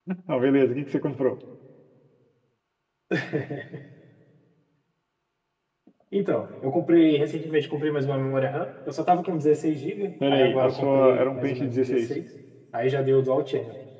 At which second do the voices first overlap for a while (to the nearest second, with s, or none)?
10 s